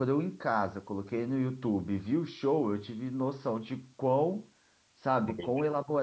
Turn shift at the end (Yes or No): No